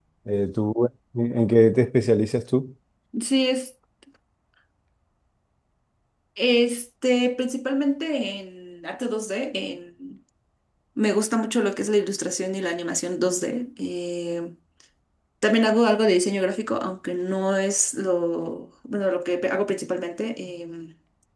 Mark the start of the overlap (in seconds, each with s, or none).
none